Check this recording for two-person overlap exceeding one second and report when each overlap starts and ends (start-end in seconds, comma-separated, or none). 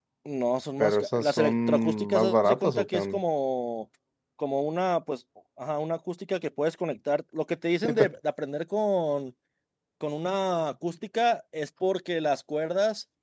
0.8-3.2